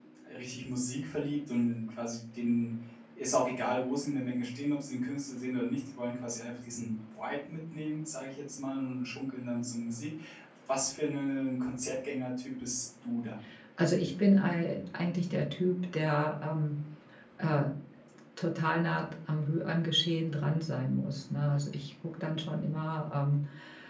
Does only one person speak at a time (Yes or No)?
Yes